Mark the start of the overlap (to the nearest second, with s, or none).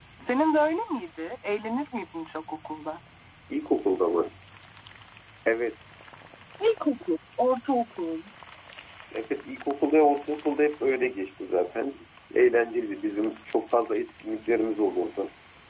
none